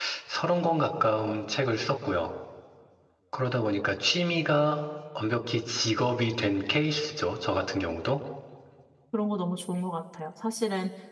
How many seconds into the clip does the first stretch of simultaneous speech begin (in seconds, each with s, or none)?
none